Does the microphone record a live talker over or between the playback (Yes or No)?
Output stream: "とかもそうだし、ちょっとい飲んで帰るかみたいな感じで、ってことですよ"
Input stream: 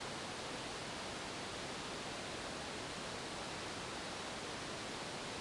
No